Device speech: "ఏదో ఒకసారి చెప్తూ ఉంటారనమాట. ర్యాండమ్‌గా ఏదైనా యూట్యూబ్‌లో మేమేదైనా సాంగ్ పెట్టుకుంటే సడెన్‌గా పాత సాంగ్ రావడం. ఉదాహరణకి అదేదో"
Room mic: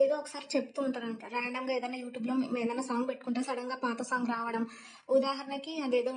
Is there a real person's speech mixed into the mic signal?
No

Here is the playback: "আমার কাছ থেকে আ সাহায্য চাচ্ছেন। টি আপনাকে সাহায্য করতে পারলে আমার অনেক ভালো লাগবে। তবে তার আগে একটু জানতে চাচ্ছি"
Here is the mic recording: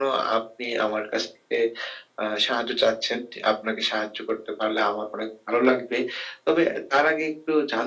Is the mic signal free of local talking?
Yes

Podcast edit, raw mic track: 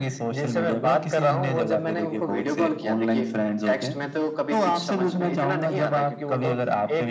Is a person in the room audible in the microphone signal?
No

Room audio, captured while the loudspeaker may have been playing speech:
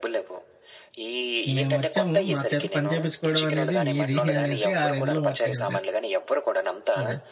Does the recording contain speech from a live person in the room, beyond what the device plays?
Yes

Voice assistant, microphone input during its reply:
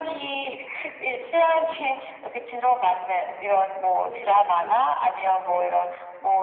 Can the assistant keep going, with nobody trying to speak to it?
No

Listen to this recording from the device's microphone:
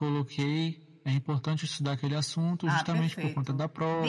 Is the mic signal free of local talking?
No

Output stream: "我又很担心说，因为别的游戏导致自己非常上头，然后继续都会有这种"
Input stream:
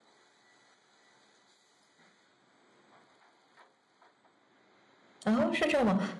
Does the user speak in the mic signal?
Yes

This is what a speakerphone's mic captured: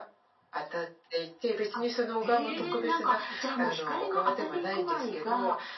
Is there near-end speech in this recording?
Yes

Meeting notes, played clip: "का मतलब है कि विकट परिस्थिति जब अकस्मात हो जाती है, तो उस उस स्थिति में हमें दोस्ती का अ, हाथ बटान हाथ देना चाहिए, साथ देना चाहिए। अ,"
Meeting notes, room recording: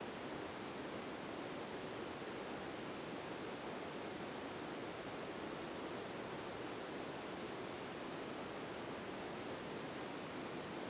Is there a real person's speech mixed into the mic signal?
No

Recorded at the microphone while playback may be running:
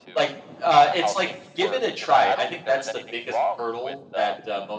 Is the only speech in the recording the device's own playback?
No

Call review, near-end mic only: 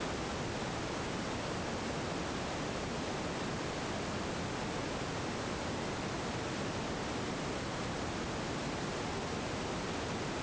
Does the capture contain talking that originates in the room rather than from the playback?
No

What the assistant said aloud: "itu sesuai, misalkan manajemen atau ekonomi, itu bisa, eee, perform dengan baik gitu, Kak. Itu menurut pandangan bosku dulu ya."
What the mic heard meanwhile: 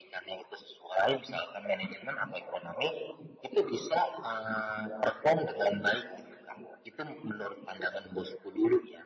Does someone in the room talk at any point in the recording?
No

